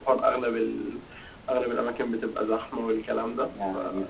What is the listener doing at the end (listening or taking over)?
taking over